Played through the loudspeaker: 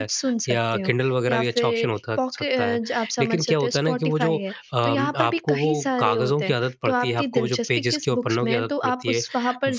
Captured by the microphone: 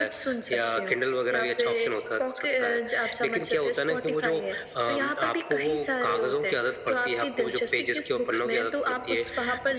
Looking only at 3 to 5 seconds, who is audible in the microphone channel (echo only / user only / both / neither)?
echo only